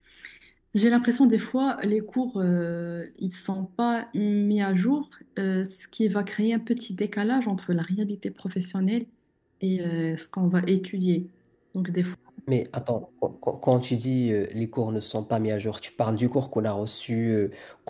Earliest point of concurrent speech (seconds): none

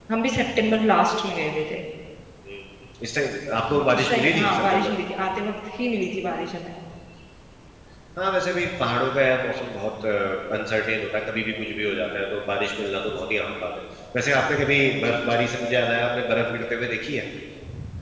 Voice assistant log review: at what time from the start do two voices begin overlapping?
3.7 s

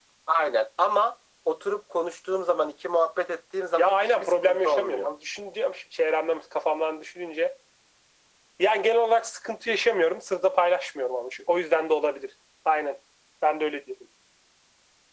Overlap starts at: 3.8 s

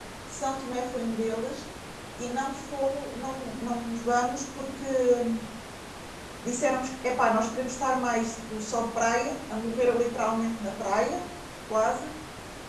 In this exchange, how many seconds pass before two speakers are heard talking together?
none

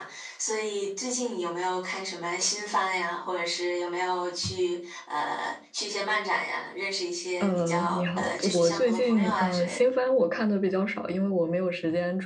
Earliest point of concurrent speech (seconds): 7.4 s

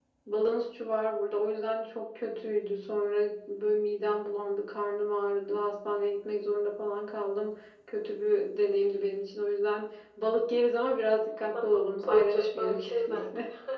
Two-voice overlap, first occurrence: 11.5 s

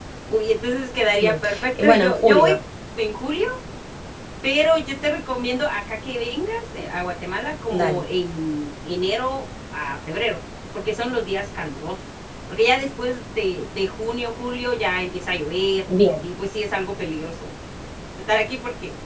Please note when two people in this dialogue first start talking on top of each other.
1.2 s

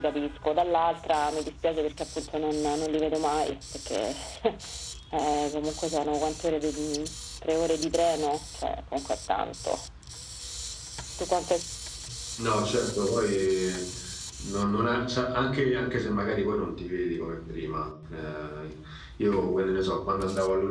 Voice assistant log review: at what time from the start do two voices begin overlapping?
none

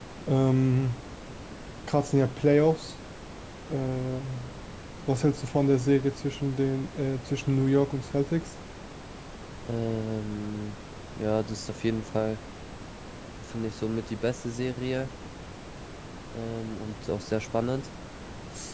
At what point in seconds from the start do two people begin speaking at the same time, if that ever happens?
none

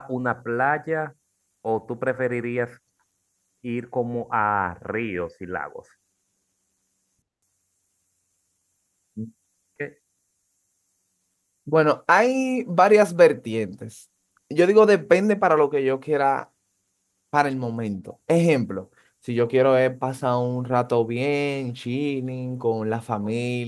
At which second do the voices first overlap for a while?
none

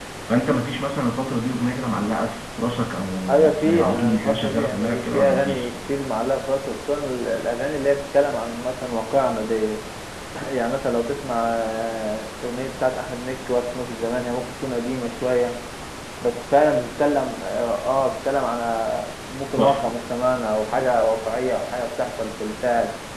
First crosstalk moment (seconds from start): 3.3 s

